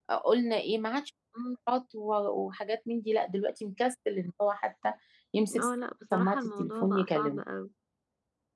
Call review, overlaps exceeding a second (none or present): present